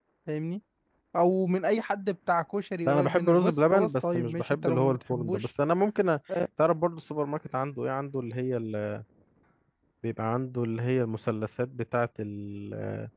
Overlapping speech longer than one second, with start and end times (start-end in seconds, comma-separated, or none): 2.9-5.5